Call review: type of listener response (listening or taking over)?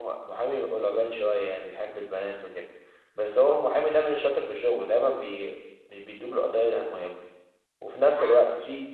listening